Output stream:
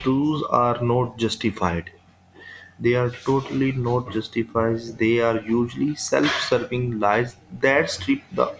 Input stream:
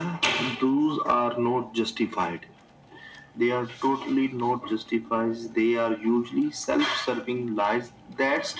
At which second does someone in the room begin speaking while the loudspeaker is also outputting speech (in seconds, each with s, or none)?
none